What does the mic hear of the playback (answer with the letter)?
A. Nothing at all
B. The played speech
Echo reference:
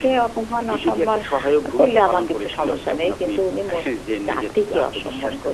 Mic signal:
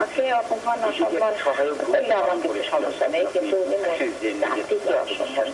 B